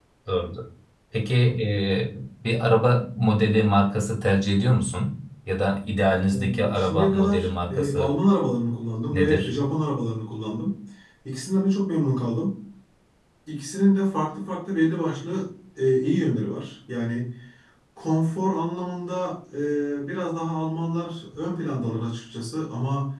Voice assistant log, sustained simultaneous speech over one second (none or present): present